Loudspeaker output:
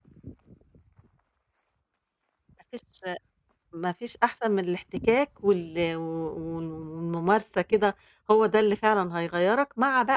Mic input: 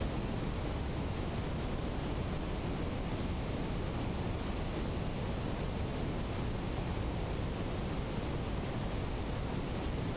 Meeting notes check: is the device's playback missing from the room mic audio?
Yes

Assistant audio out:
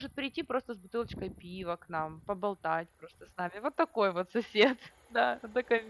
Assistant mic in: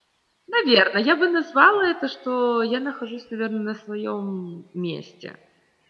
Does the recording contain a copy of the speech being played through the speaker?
No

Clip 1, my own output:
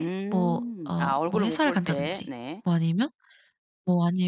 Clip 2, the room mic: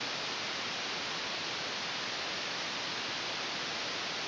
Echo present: No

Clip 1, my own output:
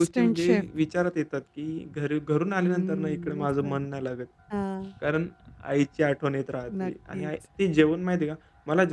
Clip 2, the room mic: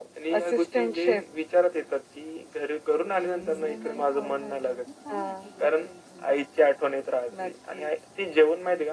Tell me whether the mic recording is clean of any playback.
No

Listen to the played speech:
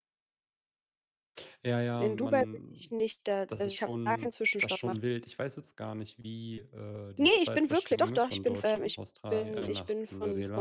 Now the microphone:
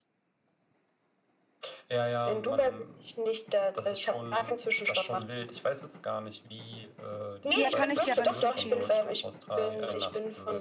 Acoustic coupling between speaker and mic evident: Yes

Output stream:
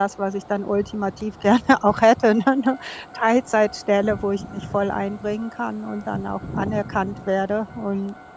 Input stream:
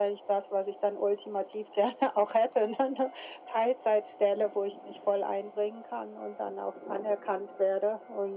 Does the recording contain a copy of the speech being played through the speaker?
Yes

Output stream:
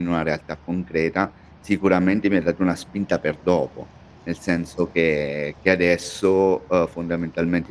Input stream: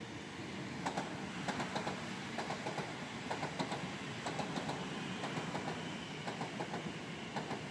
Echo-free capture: Yes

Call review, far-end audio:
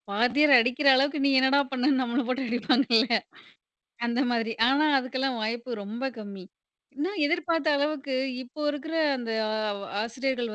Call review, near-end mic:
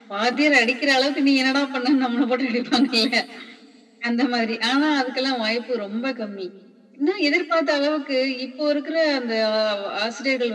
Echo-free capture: No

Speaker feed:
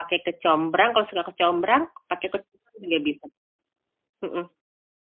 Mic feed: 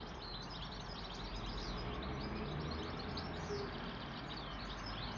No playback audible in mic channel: Yes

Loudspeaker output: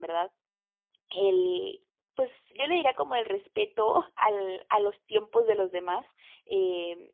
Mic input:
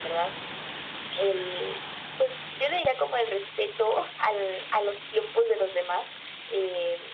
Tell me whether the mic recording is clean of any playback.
No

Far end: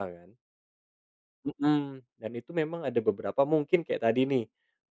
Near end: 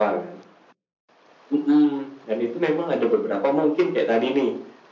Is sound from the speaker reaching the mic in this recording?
Yes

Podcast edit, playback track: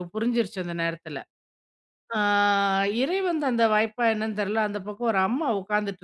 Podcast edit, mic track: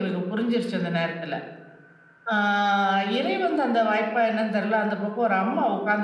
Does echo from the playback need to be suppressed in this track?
Yes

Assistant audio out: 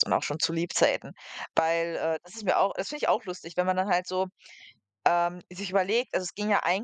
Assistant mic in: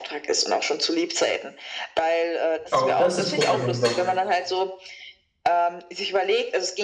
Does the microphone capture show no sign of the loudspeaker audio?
No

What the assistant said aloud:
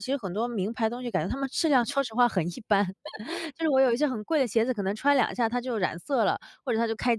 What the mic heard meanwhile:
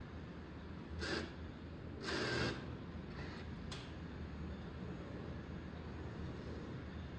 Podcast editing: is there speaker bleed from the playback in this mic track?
No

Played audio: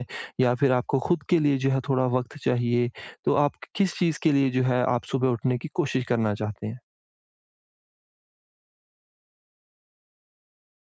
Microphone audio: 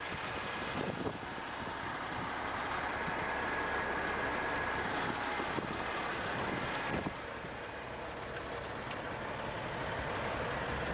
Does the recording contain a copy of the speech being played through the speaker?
No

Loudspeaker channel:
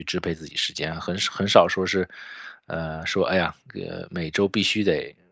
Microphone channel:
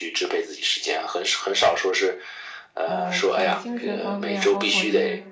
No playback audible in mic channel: No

